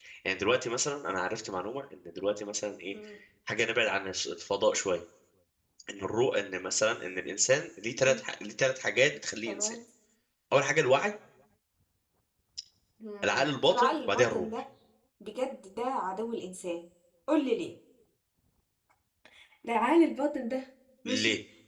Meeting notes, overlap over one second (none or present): present